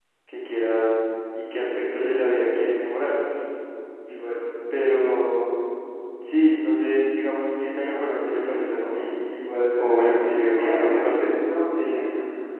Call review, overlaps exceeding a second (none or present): present